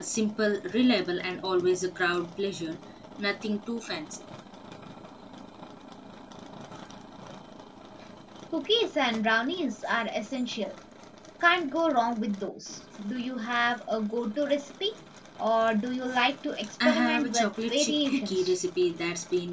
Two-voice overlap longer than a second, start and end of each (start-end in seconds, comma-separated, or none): 16.8-18.6